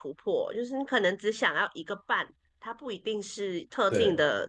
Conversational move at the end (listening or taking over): listening